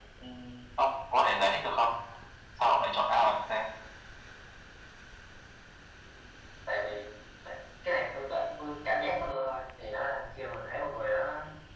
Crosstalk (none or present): none